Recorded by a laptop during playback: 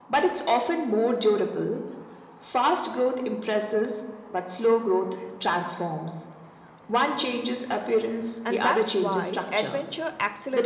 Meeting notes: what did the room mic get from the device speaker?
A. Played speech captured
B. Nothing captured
A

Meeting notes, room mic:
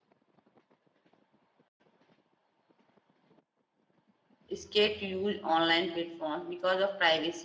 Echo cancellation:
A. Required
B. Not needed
B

